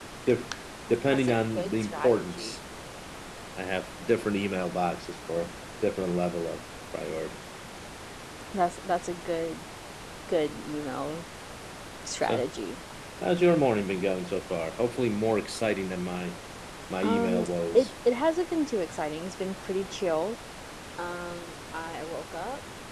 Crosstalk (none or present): present